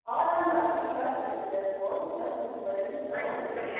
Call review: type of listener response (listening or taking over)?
taking over